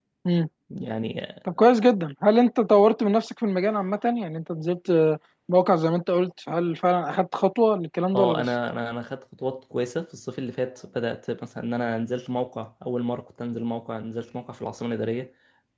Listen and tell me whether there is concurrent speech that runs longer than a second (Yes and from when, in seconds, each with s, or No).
No